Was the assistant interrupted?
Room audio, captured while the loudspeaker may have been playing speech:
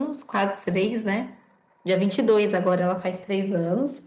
No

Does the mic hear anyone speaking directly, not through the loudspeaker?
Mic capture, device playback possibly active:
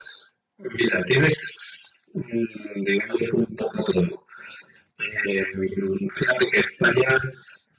No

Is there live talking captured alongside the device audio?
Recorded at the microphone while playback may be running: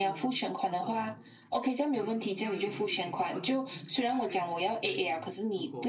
Yes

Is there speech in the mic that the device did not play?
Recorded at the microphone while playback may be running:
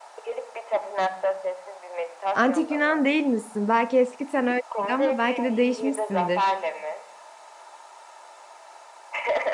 Yes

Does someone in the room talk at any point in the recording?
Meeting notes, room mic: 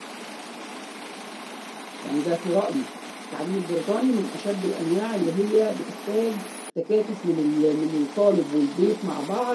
Yes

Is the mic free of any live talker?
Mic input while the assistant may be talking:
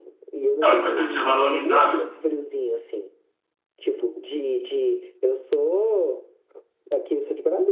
No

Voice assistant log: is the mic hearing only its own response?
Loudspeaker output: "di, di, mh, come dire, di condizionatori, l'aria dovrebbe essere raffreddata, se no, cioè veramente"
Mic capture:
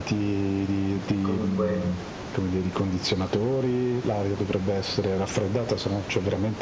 No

